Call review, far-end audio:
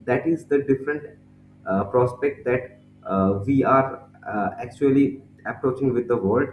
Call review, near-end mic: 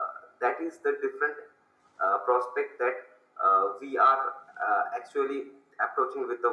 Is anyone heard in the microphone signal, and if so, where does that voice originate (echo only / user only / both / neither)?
echo only